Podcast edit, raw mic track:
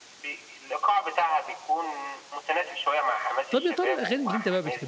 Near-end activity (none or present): present